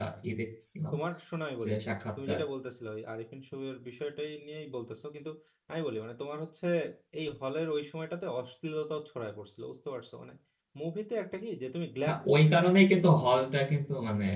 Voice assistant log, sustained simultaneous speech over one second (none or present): none